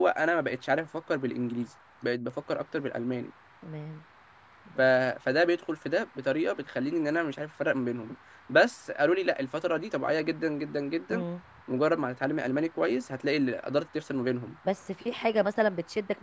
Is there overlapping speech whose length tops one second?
No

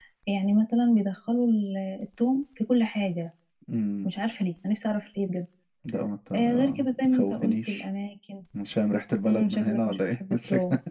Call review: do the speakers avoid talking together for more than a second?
No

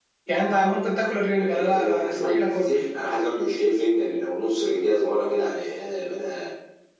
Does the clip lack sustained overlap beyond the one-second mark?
No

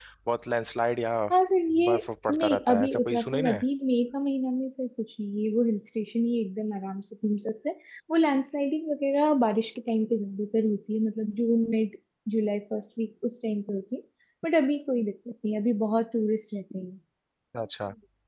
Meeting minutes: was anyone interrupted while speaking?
Yes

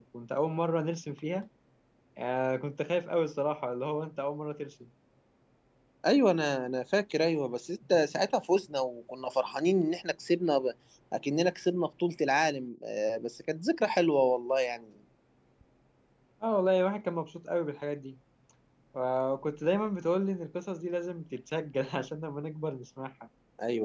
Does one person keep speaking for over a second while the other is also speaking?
No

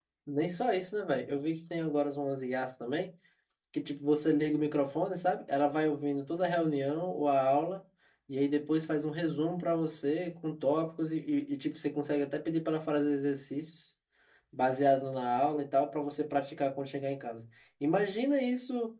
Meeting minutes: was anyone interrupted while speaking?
No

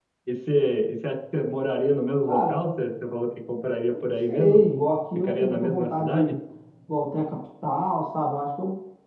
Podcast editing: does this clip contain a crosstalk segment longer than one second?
Yes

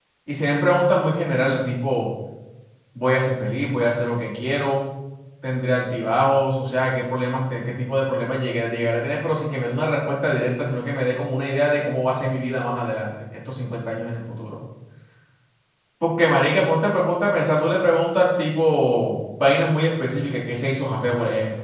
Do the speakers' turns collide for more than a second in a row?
No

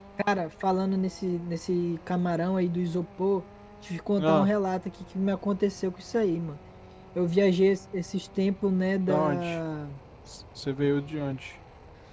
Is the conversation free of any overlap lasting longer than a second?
Yes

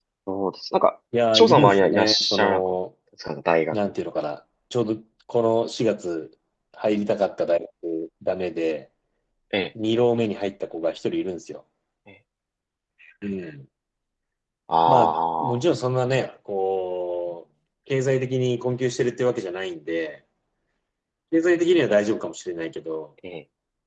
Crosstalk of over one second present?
Yes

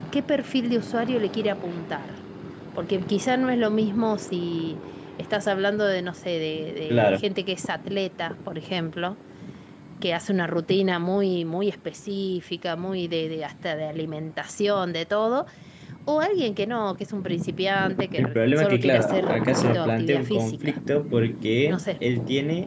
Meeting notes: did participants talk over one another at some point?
Yes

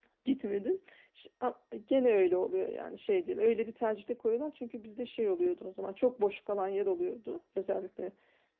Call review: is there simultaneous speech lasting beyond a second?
No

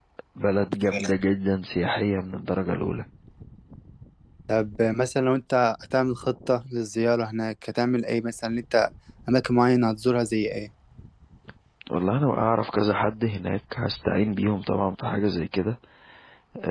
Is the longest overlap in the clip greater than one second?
No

